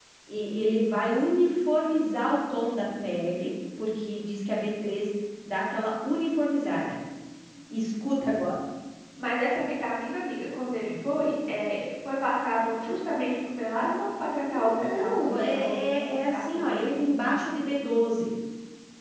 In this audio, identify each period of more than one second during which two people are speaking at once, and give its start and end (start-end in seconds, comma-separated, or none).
14.8-17.4